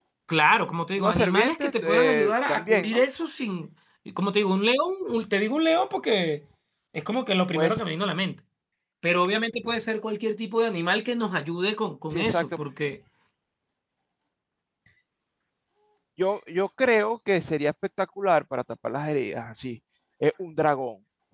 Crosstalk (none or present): present